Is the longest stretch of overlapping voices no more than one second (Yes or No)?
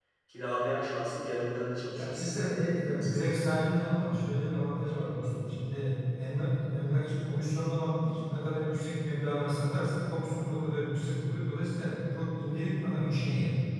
No